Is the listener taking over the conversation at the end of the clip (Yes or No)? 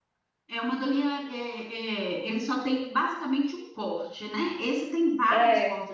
No